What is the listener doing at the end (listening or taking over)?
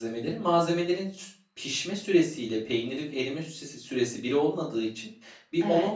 listening